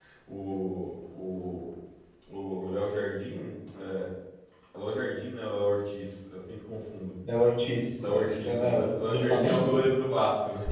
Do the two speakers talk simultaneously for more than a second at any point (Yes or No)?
Yes